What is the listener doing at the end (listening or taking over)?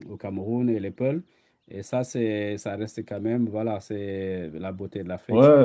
taking over